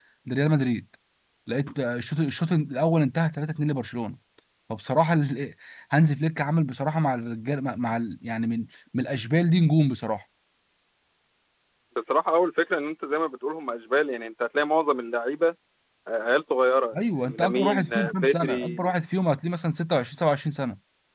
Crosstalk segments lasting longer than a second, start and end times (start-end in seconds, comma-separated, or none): 17.2-18.8